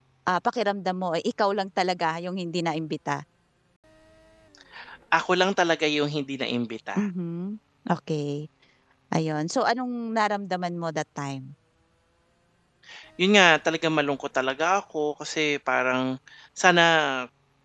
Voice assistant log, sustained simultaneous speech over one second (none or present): none